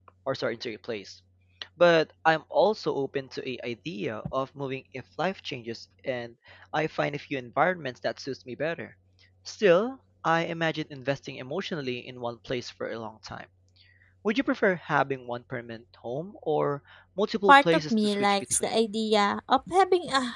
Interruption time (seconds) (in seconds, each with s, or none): 17.5 s